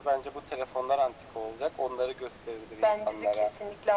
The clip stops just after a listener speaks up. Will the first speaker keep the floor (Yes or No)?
No